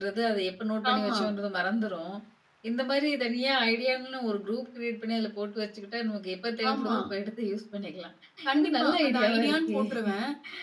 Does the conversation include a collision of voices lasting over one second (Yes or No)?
Yes